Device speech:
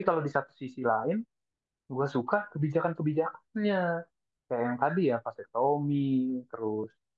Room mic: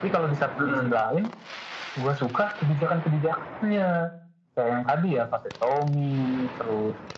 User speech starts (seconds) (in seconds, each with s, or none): 0.6 s